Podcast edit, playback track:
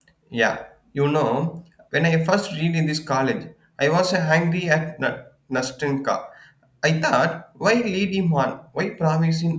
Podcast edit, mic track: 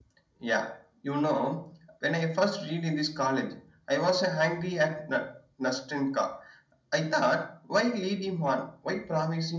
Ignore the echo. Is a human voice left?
No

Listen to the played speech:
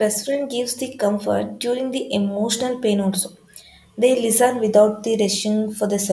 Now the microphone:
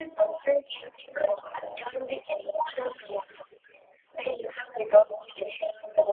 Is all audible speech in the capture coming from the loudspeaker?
Yes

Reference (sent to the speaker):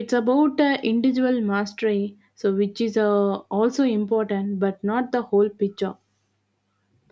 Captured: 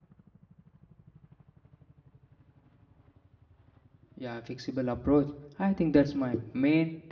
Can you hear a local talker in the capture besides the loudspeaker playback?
Yes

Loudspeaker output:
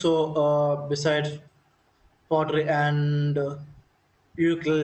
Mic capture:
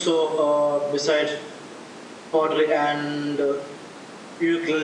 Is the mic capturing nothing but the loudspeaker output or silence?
Yes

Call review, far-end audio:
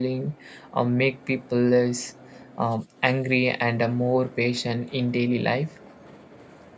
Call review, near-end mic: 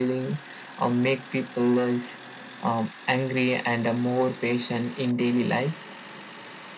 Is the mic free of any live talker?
Yes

